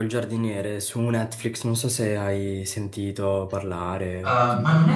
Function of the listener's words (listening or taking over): taking over